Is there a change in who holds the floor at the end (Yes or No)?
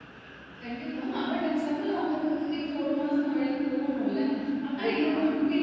No